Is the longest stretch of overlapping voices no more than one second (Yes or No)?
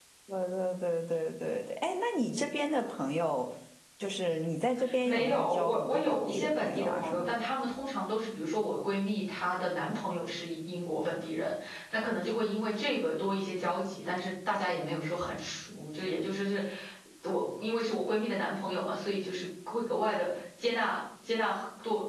No